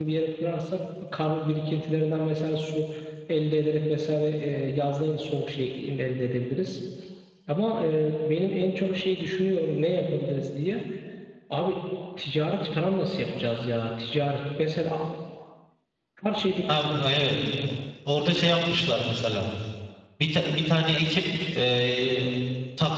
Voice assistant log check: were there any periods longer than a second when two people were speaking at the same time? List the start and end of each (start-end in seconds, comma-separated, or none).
none